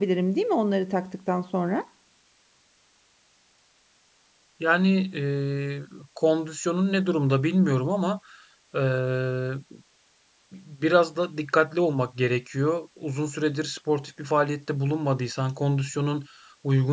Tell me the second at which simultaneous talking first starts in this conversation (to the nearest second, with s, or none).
none